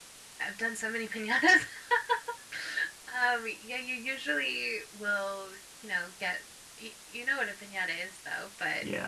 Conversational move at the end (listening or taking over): taking over